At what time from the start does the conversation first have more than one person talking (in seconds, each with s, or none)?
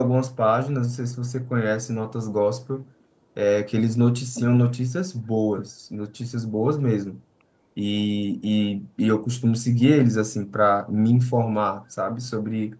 none